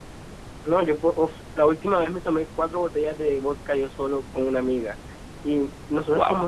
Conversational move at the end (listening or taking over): listening